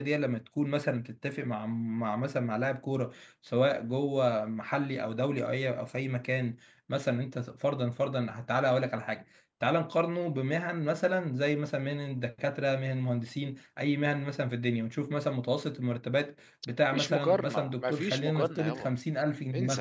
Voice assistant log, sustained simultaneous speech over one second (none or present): present